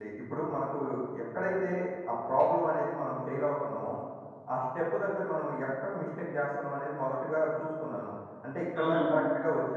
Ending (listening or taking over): listening